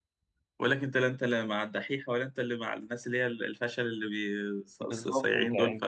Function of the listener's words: taking over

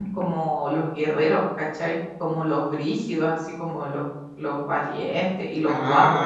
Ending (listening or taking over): taking over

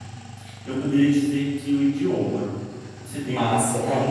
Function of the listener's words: taking over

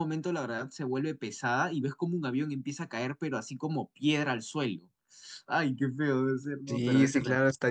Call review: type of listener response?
taking over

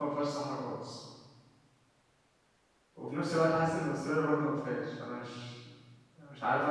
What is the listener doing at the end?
taking over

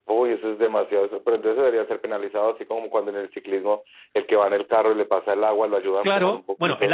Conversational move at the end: taking over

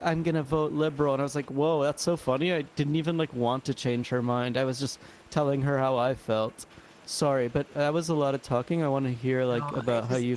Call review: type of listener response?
taking over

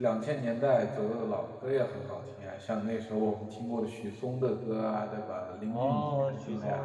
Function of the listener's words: taking over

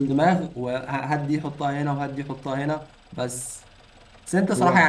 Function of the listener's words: listening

